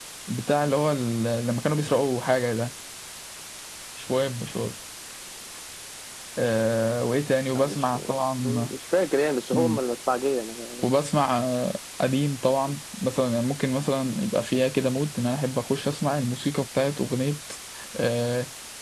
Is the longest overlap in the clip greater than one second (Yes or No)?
No